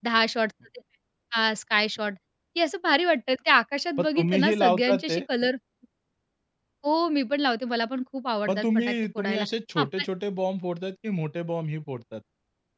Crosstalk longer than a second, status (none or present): present